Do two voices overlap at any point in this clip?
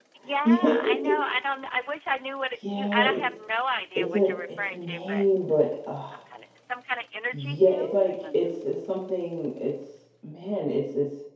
Yes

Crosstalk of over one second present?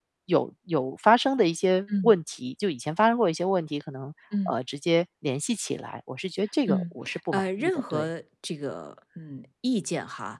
Yes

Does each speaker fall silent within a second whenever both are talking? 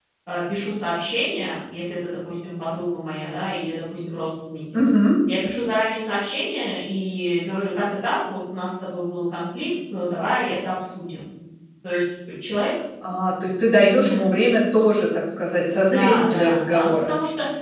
No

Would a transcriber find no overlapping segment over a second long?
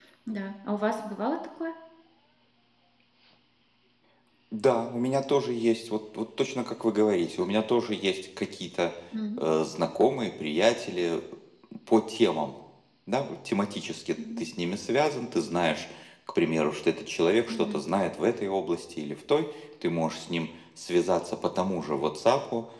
Yes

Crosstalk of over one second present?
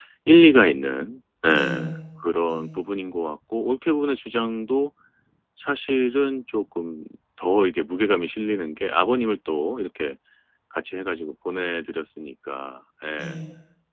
No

